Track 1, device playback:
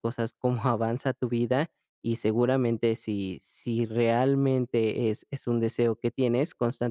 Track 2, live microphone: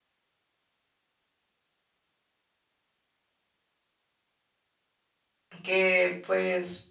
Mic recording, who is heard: user only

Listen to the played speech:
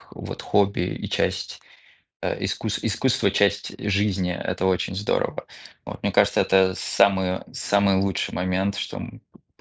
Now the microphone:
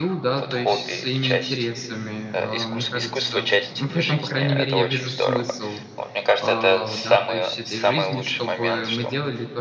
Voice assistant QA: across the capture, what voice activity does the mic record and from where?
both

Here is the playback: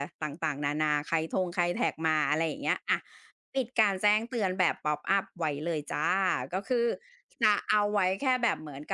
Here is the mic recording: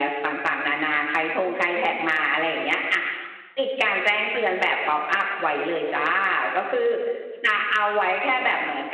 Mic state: echo only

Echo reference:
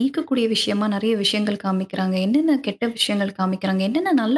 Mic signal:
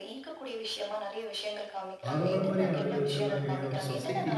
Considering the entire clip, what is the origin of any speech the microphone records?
both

